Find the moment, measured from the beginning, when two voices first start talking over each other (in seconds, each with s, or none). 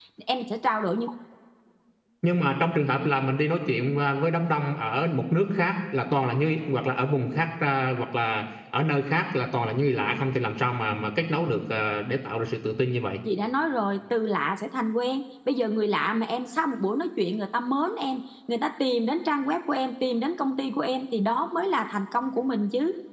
none